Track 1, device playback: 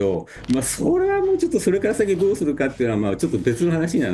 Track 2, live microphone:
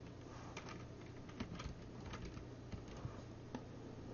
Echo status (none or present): none